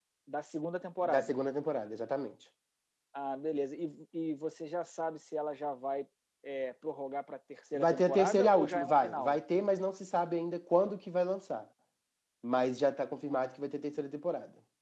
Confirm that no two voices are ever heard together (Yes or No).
No